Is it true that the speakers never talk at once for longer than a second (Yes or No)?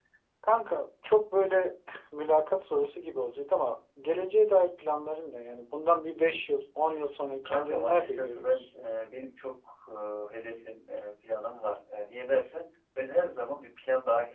No